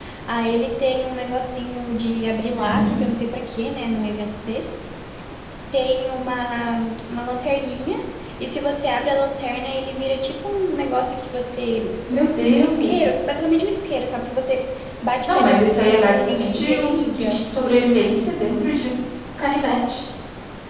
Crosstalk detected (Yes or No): Yes